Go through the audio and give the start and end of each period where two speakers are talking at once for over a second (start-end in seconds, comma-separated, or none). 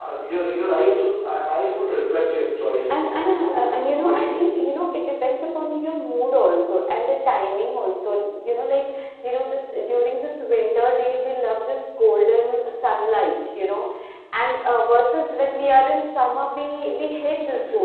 3.0-4.3